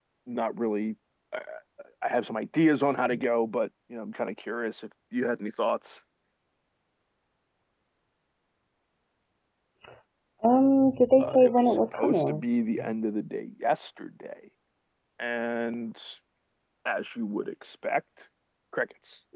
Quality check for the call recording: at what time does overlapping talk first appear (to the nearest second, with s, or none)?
11 s